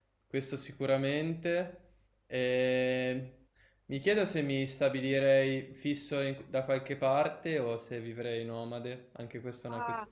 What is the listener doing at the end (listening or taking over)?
taking over